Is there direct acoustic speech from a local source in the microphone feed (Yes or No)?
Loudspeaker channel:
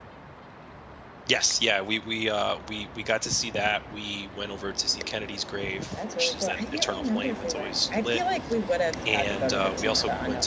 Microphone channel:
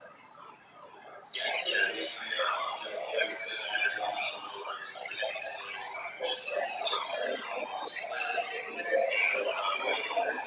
No